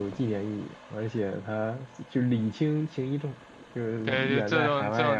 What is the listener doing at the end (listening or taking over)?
taking over